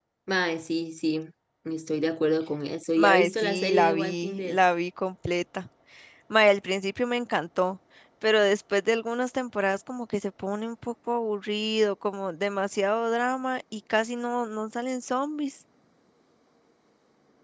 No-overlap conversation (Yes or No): No